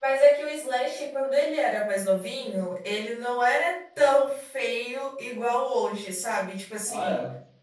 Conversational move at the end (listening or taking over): listening